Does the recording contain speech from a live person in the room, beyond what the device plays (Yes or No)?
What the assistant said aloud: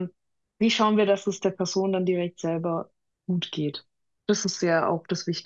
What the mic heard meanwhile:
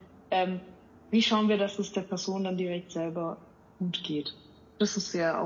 No